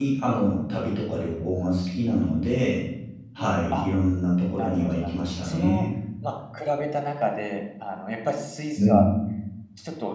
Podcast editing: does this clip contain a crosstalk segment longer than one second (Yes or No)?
Yes